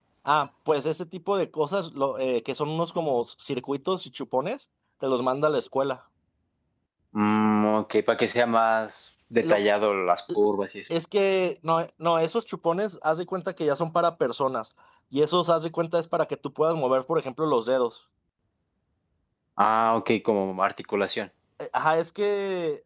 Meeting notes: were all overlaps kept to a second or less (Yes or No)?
Yes